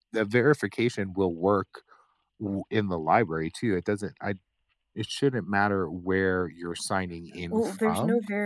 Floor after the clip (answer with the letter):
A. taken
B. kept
A